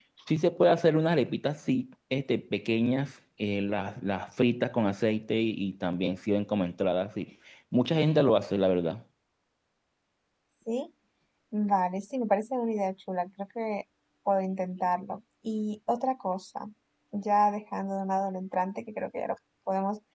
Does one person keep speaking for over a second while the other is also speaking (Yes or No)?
No